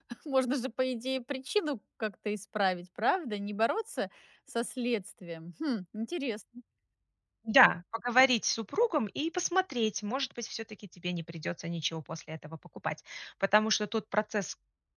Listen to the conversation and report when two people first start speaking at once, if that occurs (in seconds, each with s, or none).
none